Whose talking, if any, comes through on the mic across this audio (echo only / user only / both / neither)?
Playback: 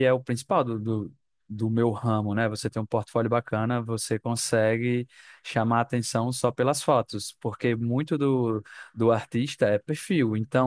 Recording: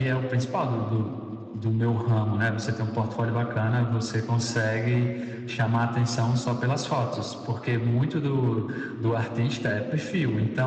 echo only